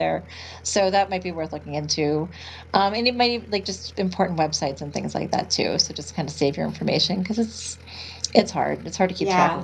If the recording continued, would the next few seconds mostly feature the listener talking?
Yes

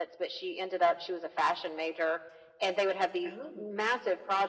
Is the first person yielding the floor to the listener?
No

